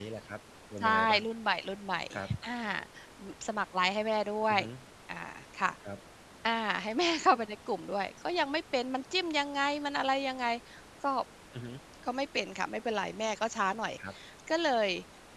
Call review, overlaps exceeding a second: none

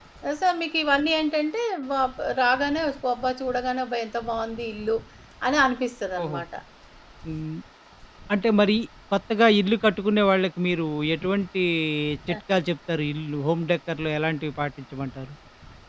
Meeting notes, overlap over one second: none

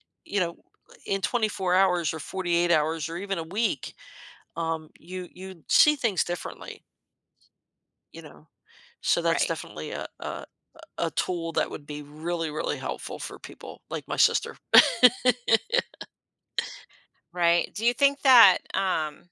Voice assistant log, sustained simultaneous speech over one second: none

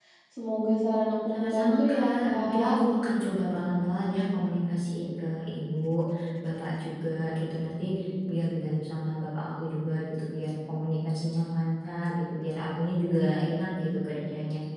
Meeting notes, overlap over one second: present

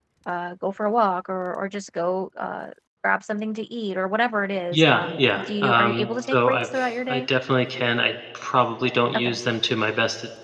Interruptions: present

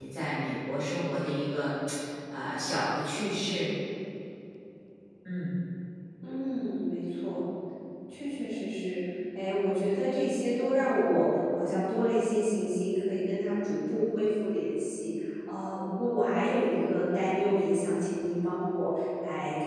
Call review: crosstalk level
none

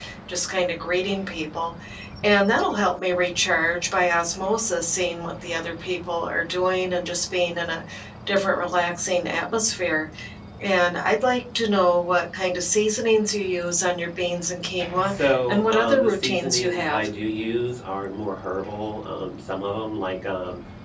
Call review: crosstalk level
present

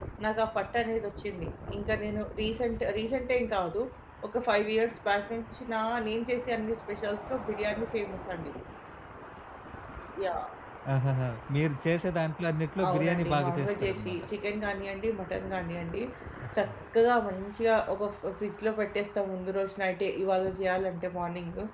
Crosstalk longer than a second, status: present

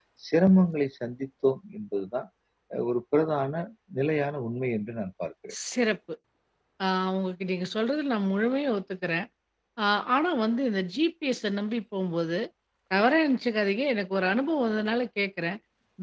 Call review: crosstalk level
none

